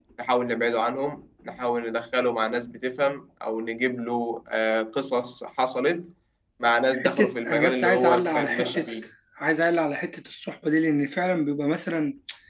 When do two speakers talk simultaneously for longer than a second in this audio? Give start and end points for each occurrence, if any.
7.0-8.9

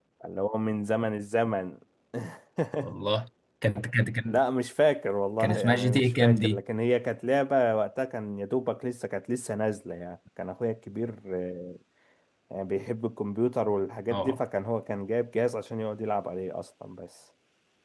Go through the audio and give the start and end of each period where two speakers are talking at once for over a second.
5.4-6.6

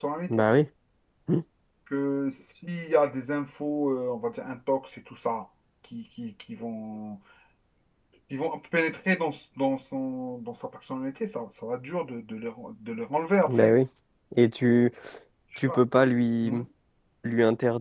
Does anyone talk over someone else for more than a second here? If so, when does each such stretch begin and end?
none

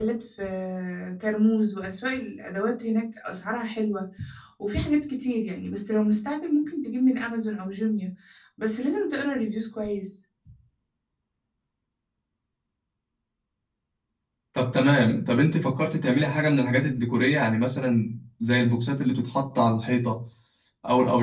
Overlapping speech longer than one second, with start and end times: none

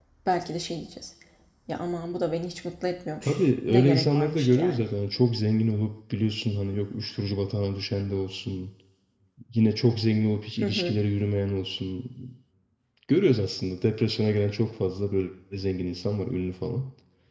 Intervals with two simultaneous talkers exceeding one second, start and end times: 3.2-4.9

